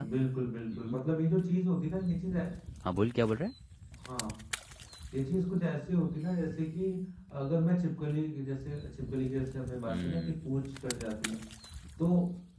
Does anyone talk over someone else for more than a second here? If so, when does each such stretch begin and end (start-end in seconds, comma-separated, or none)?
none